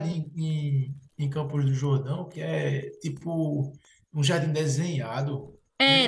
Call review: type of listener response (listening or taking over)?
taking over